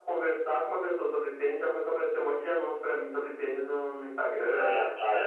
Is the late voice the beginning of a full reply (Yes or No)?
Yes